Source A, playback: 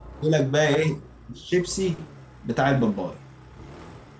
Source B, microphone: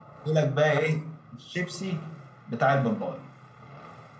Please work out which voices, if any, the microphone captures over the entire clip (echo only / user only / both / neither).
echo only